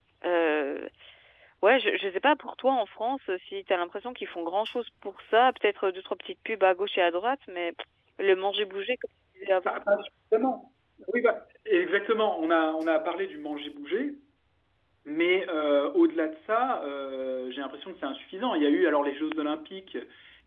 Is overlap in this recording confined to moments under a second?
Yes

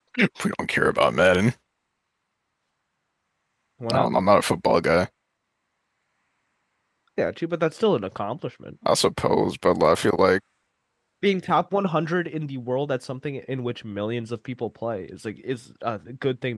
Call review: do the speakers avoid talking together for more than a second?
Yes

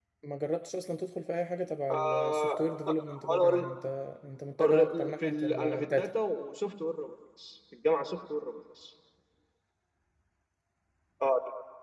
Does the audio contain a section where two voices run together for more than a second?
Yes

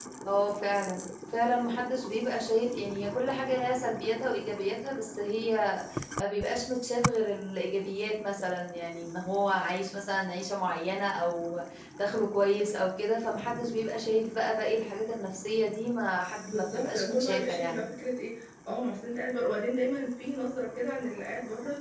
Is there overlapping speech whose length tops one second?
Yes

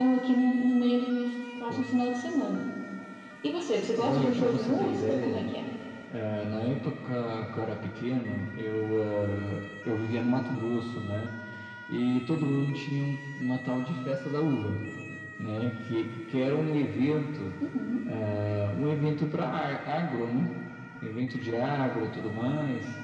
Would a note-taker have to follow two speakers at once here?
Yes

